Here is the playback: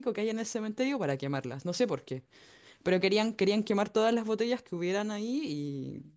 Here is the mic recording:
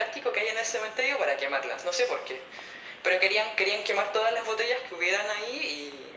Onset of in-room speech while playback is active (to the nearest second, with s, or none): none